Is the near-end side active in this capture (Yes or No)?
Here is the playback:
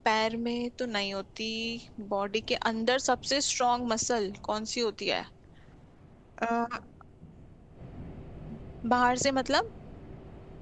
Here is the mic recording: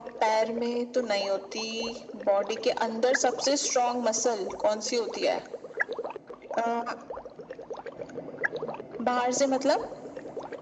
No